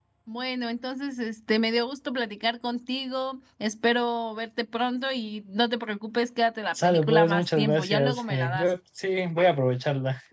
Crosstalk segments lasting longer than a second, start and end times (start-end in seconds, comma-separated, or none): 6.8-8.7